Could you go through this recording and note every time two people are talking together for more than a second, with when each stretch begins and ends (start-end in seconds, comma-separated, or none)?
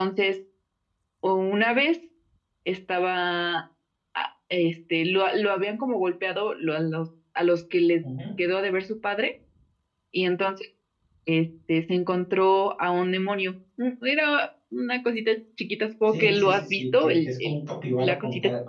16.1-17.6